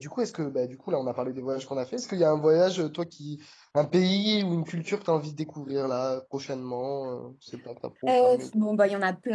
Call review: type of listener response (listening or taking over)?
taking over